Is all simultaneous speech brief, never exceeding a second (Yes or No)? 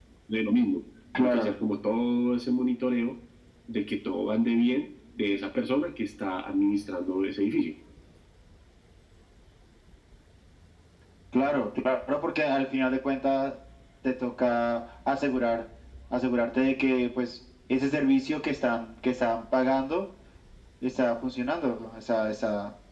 Yes